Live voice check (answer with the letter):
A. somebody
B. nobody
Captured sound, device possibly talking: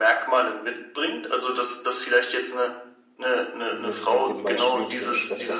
A